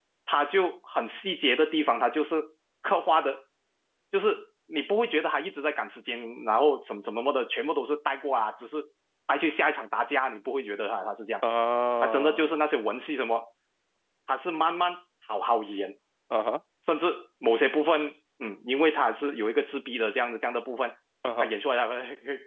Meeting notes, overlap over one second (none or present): none